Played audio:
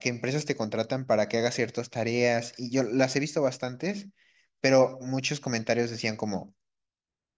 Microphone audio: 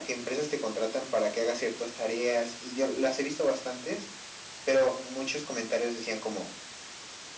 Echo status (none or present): present